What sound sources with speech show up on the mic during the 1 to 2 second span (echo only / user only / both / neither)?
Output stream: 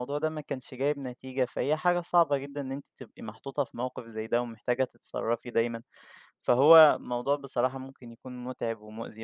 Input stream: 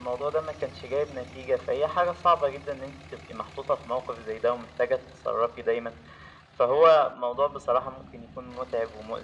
echo only